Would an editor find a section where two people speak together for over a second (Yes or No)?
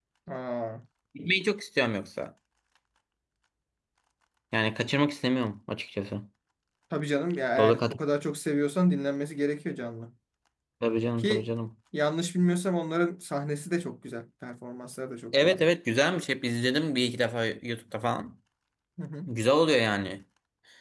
No